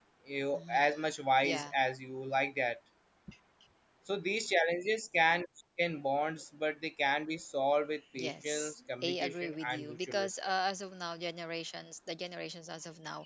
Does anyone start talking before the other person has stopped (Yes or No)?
Yes